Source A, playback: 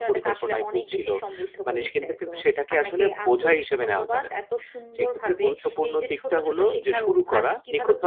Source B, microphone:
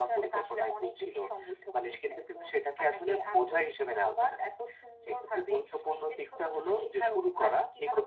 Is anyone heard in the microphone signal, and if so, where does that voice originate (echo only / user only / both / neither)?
echo only